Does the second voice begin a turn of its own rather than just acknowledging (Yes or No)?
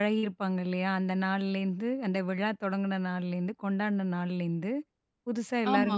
No